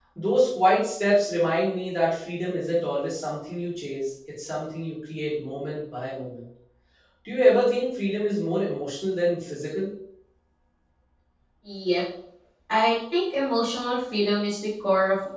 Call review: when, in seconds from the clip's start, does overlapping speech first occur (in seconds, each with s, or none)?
none